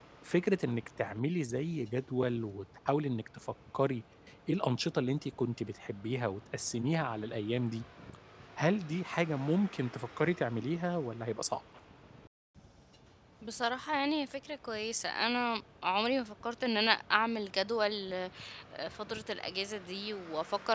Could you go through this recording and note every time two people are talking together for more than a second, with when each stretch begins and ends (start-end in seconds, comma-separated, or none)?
none